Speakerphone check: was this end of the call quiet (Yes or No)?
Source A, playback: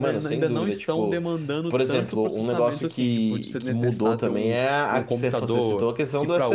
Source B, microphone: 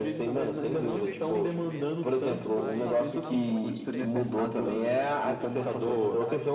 No